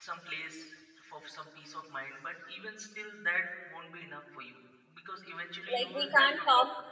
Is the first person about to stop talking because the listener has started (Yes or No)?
Yes